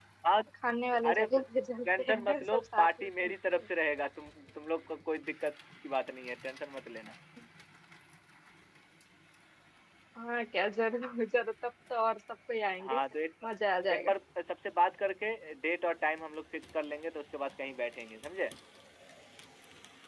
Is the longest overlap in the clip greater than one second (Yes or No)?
Yes